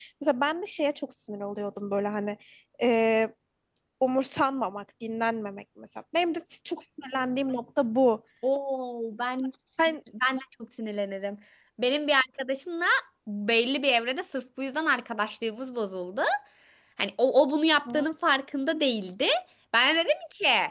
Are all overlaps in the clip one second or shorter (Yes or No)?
Yes